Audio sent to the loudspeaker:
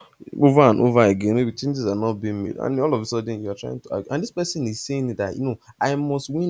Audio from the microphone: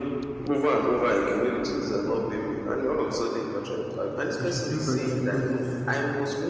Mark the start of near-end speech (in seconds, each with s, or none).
4.4 s